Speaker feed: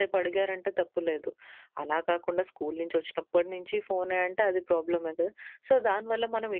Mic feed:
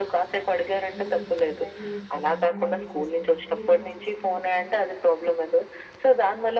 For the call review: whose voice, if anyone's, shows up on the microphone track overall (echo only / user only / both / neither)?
both